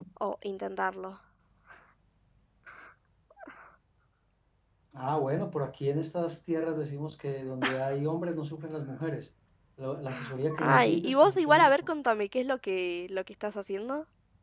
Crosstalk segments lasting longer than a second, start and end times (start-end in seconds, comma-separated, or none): 10.6-11.9